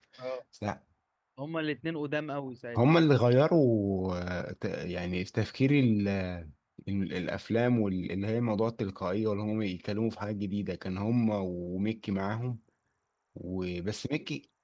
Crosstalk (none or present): none